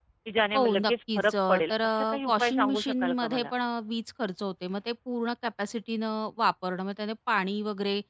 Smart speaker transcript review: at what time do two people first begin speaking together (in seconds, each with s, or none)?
0.5 s